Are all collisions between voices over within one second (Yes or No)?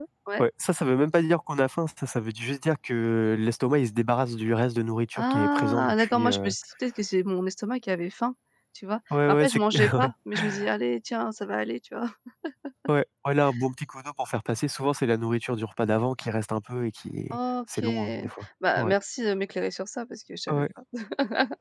No